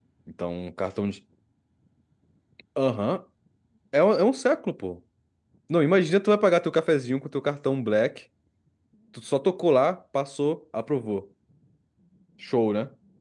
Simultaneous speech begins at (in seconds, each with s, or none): none